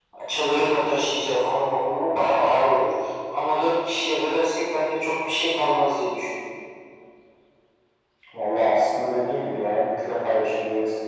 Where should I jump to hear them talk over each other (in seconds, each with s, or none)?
none